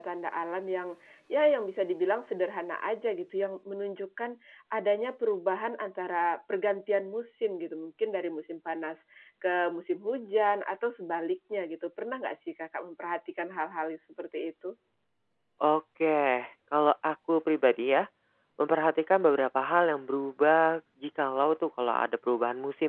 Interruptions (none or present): none